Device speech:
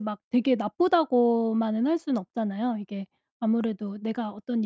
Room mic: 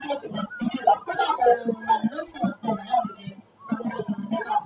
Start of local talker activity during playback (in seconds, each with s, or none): none